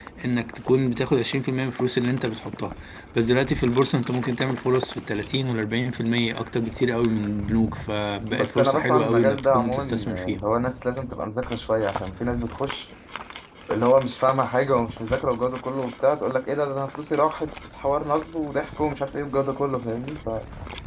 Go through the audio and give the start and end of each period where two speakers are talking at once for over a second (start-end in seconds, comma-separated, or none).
8.3-10.4